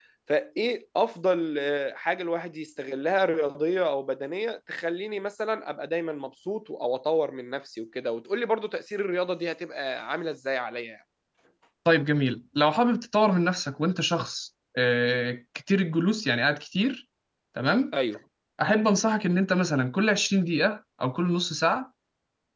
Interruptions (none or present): none